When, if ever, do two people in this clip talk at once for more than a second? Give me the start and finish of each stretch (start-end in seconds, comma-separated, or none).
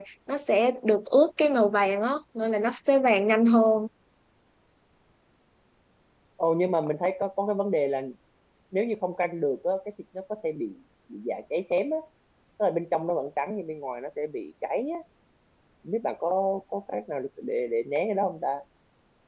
none